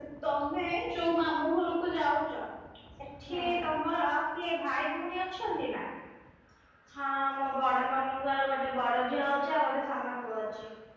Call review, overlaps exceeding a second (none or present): none